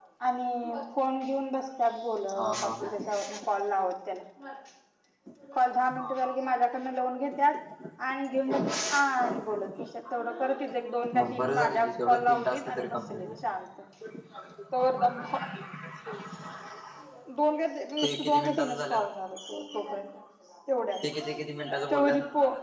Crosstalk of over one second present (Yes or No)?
Yes